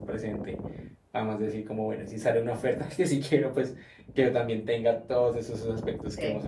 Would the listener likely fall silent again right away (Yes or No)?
No